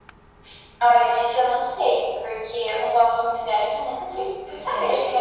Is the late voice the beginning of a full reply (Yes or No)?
Yes